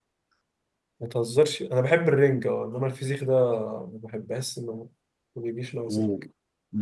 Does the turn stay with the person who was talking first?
No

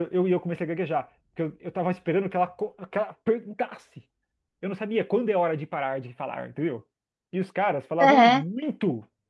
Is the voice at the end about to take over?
No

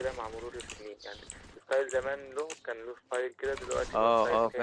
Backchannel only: No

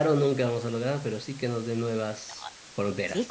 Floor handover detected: Yes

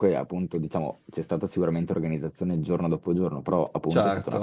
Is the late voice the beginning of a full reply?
No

